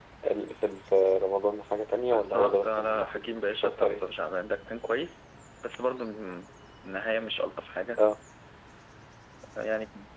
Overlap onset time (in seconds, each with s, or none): 2.1 s